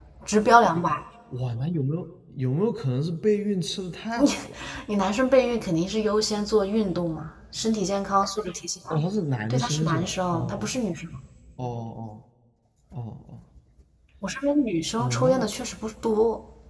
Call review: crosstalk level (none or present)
present